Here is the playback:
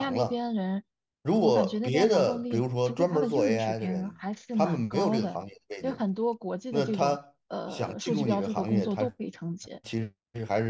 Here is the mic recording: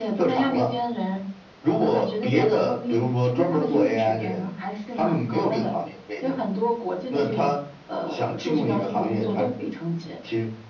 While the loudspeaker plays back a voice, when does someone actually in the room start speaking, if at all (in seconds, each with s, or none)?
none